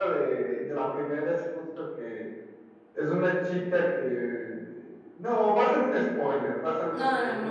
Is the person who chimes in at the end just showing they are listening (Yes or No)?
No